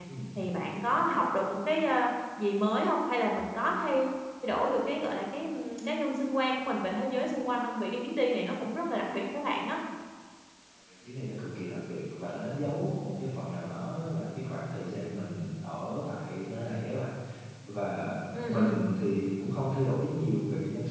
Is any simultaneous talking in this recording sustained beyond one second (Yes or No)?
No